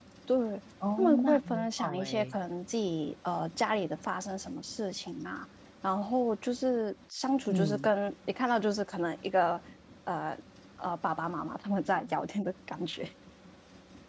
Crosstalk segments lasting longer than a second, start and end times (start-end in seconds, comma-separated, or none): 0.9-2.4